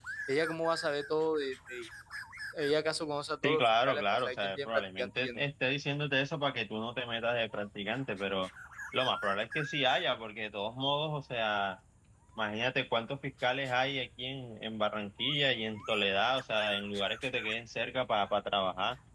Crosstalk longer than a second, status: present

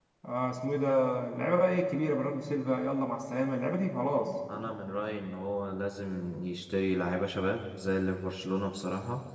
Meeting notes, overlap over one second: none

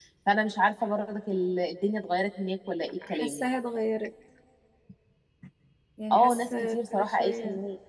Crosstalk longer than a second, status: present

